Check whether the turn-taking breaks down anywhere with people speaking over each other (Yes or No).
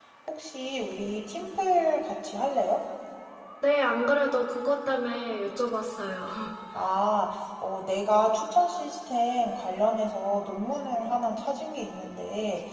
No